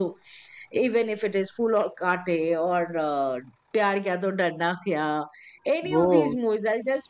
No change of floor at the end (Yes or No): Yes